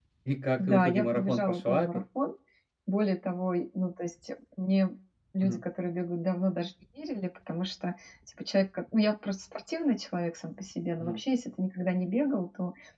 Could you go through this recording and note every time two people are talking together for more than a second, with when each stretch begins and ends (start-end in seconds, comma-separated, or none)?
0.6-2.0